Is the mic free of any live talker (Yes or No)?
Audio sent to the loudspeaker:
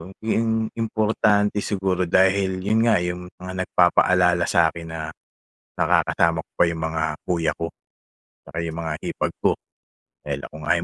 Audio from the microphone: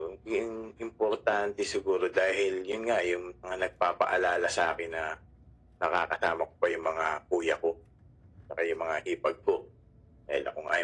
Yes